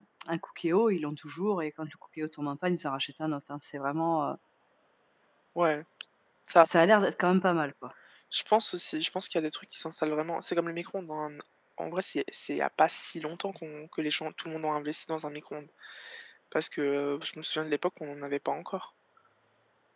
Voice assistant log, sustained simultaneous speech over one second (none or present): none